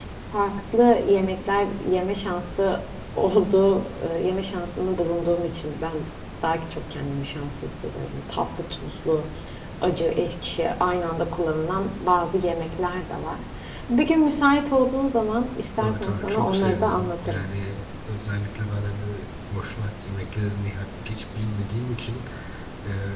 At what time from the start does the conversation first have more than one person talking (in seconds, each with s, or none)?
15.8 s